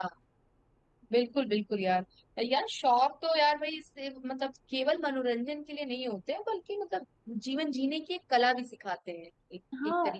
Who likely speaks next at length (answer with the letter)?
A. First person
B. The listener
B